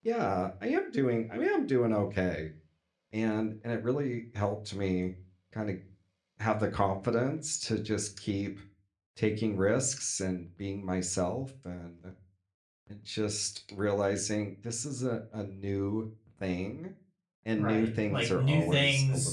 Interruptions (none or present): present